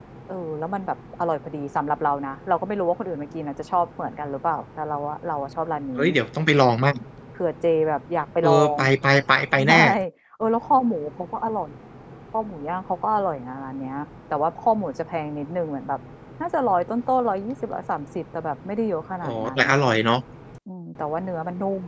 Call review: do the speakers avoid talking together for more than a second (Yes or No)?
Yes